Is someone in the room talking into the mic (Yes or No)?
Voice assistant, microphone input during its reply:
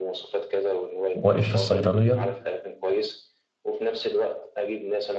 Yes